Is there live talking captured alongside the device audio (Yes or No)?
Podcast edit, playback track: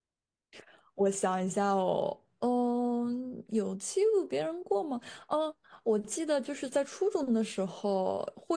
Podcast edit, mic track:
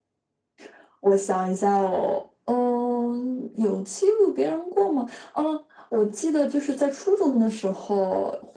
No